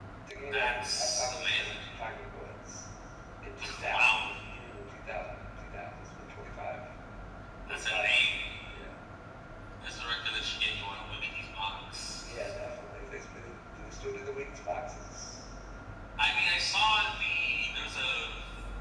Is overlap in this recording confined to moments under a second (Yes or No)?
No